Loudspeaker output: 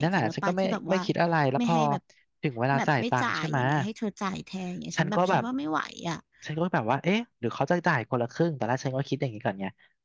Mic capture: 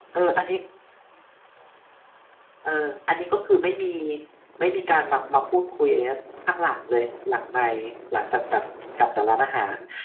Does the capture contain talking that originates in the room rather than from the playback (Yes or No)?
Yes